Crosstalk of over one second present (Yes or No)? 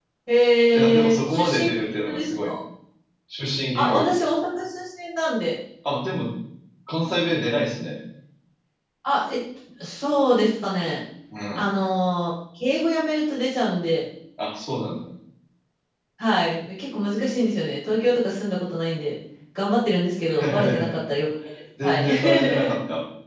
Yes